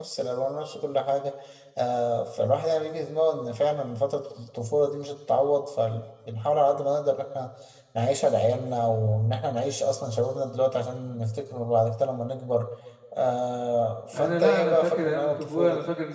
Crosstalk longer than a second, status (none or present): present